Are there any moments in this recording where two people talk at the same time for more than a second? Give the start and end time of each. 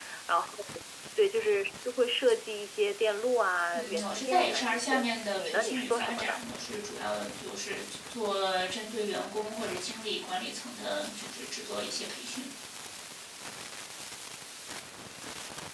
3.7-6.4

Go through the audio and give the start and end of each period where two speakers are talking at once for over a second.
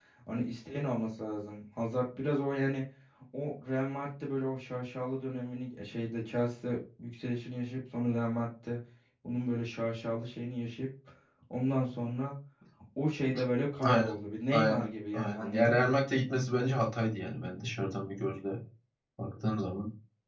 14.5-15.9

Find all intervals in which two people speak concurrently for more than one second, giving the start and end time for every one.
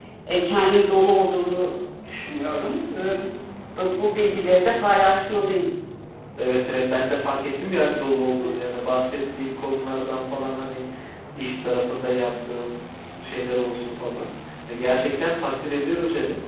none

